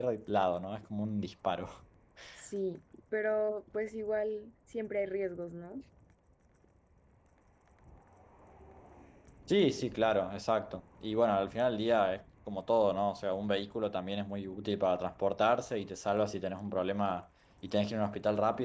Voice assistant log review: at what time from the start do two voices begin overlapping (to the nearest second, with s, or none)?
none